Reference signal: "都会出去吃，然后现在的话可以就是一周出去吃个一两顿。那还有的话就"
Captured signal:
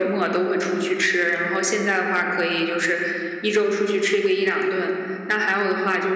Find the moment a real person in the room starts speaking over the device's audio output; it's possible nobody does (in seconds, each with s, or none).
none